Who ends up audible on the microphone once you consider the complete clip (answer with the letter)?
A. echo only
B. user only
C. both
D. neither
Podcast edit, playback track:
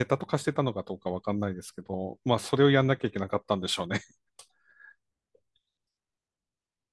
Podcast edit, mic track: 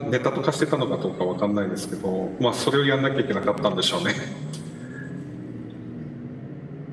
A